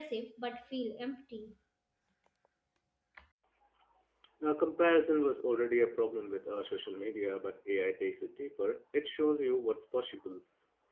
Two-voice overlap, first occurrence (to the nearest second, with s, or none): none